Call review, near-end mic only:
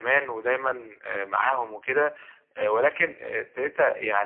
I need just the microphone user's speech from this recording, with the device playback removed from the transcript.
none

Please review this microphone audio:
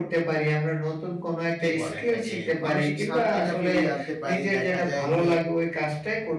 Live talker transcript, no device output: কি বলে এটাকে? মানসিক শান্তিটা ফিরিয়ে আনতে পারি। দেখা যায় যে

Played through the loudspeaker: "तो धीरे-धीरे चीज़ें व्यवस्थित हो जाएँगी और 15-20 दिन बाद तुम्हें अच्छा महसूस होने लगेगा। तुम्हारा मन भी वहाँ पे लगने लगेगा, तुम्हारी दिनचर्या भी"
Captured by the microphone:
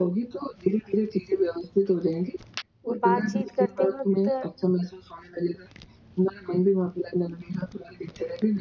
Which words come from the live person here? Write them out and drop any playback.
बातचीत करते वक़्त

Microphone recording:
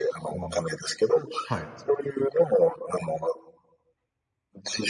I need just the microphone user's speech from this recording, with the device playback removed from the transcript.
うん。はい。

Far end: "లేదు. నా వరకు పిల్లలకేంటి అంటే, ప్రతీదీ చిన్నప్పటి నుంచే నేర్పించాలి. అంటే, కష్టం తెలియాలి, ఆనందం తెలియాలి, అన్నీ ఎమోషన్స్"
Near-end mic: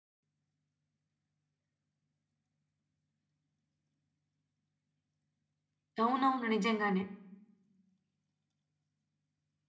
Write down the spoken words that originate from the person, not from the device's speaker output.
అవునవును. నిజంగానే.

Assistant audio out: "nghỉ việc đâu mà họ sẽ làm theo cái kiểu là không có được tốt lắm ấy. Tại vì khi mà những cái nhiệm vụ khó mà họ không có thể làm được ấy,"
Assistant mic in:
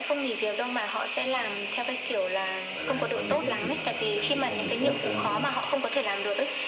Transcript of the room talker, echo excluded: gọi là, có những cái trường hợp mà làm việc không được tốt cho lắm á,

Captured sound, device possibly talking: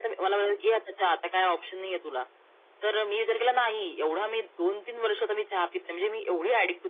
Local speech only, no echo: none

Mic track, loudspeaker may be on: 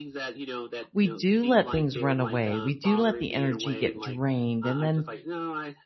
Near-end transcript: we do let things run away. We do let the energy get drained and then

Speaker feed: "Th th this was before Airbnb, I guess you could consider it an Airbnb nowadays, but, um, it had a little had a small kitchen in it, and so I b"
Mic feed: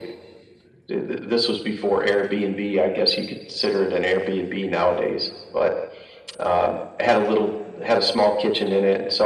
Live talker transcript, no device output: none

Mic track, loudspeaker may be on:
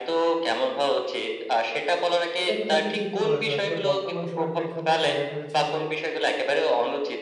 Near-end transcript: এটা কিন্তু আপনি ঠিকই বলেছেন। আসলে বর্তমান সময়ের প্রেক্ষাপটে দেখা যাচ্ছে এই যে

